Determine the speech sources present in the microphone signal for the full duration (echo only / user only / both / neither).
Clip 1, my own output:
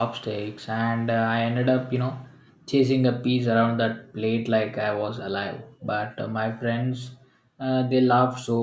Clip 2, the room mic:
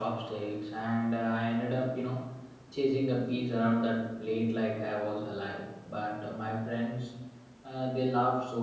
echo only